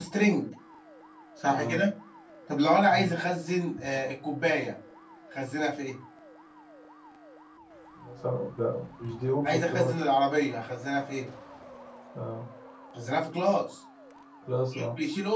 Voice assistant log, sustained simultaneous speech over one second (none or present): none